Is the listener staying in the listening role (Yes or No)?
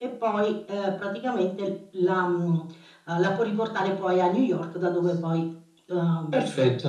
No